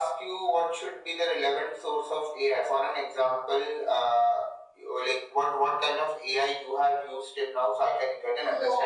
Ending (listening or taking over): taking over